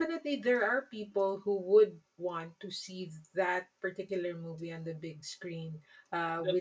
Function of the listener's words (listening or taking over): listening